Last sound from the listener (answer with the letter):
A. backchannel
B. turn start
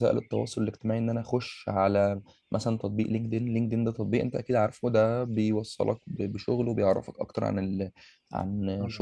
A